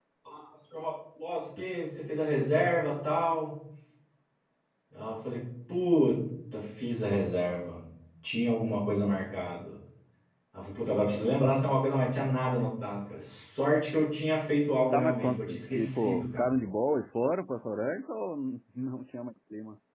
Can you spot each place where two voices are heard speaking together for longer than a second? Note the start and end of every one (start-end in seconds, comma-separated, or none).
14.9-16.5